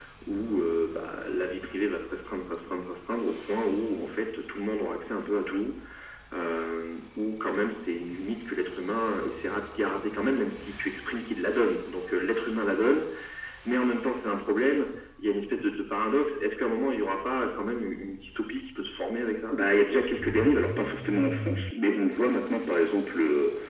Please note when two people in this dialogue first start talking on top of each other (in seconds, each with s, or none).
none